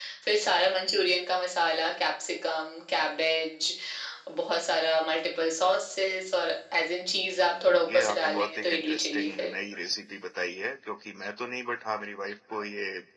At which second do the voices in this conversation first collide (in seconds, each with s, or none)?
7.4 s